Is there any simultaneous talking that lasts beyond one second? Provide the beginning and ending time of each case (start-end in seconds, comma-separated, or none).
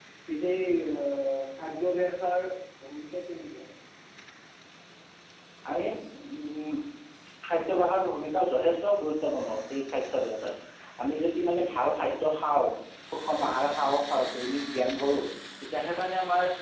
none